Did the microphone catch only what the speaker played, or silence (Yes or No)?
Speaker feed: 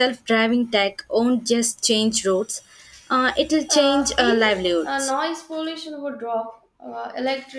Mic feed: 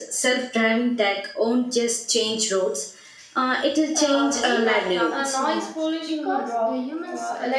No